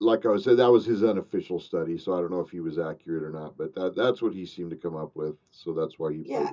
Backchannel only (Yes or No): No